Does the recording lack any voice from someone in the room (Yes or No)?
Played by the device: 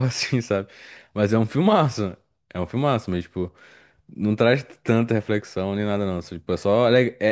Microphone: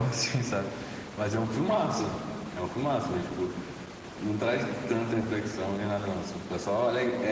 Yes